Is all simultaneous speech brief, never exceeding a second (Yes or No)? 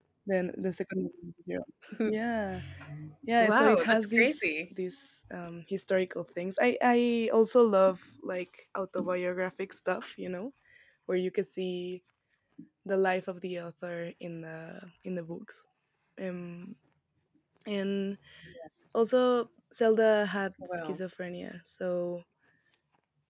No